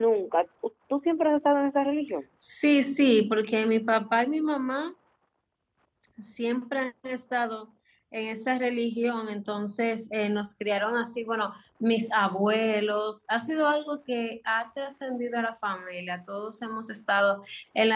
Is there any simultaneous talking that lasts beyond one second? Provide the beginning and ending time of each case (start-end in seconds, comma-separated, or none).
none